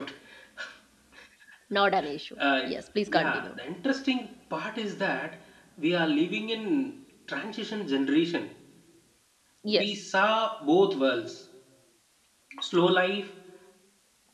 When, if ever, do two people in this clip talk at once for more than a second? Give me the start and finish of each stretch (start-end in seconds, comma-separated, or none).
none